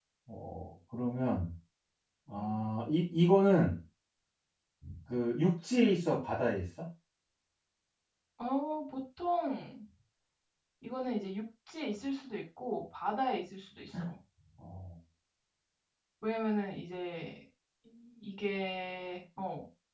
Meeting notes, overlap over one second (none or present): none